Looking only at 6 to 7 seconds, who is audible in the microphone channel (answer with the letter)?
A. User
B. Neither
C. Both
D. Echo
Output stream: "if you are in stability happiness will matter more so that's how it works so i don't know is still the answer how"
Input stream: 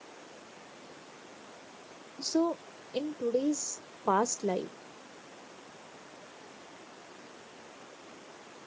B